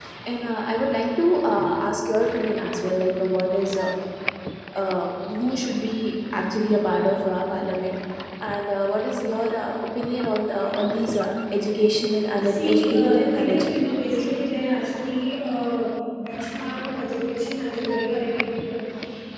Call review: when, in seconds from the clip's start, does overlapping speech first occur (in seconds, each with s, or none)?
12.4 s